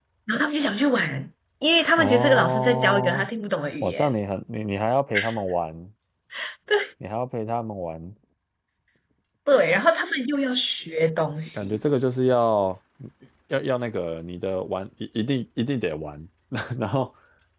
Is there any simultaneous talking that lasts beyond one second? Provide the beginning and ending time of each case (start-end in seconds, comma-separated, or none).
2.0-3.3